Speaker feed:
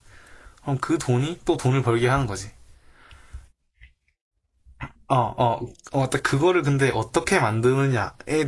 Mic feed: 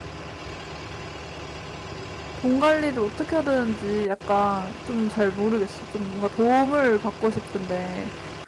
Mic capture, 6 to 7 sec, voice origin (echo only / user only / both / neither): user only